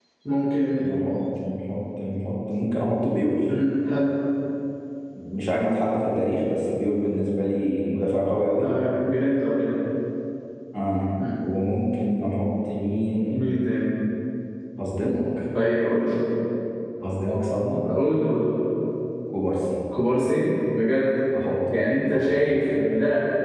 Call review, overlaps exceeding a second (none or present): none